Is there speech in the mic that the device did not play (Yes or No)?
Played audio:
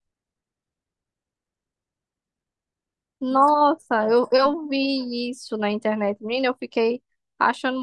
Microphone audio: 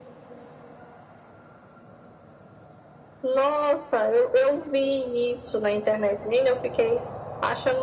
No